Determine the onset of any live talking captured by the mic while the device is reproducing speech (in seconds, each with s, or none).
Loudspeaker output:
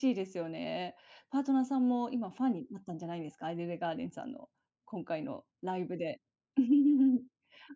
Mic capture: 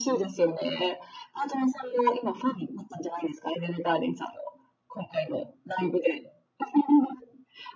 none